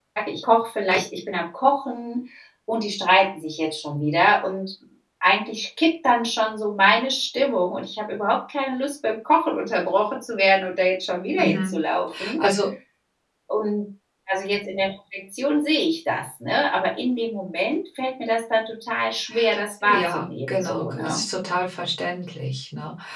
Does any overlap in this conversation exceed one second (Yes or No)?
Yes